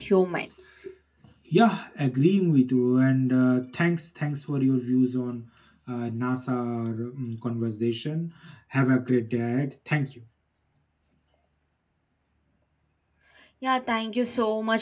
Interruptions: none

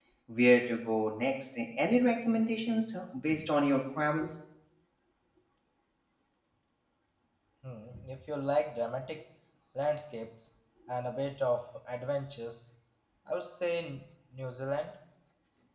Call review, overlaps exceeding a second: none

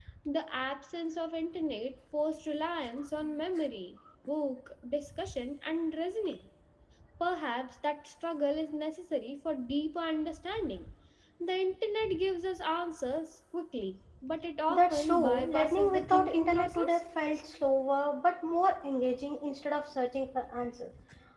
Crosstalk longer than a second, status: present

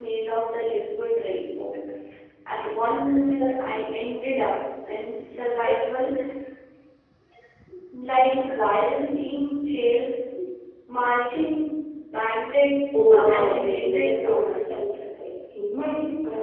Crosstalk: present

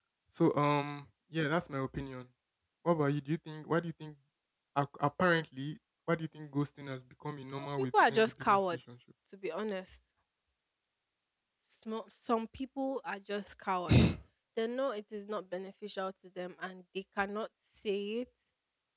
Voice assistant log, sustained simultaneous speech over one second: present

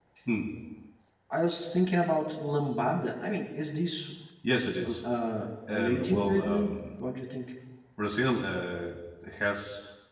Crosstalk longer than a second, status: present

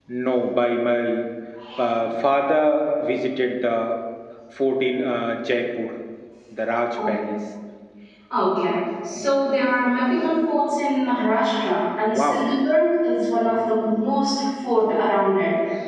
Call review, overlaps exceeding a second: none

